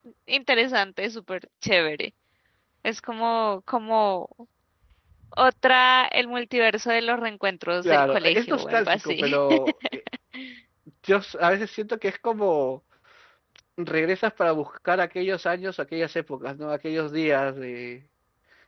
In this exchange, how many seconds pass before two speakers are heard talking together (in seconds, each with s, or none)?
7.8 s